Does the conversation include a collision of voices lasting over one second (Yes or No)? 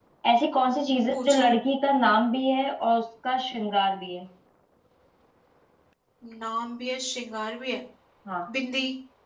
No